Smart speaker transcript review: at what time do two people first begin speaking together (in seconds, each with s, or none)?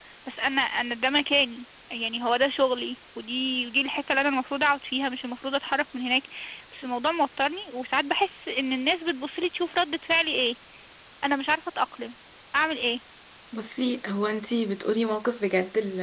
none